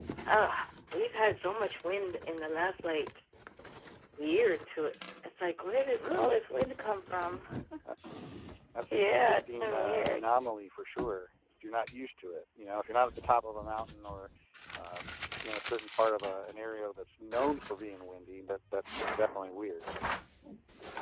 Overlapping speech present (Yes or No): Yes